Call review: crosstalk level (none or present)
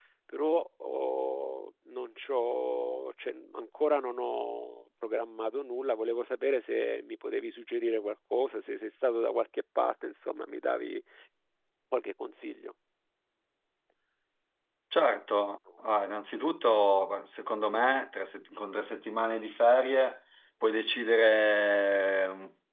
none